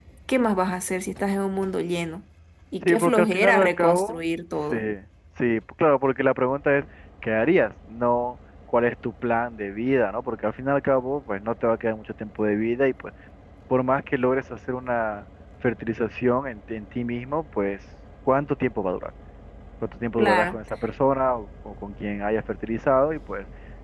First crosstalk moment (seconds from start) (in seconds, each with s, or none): 2.8 s